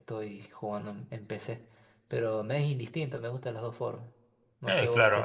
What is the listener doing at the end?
taking over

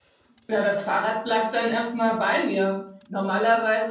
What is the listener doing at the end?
listening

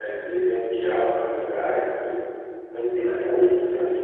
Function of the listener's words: listening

